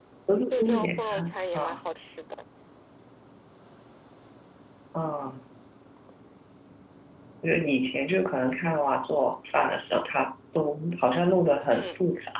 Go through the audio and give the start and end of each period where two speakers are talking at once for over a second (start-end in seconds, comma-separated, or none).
0.5-1.8